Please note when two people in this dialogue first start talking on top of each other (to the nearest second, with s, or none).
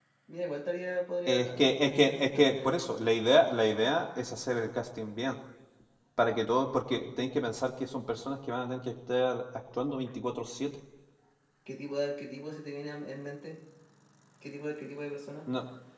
1 s